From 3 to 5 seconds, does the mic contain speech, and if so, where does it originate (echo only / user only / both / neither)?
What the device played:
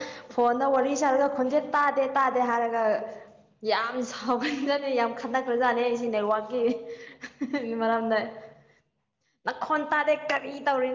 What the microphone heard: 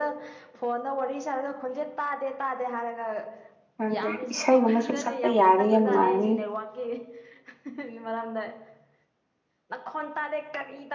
both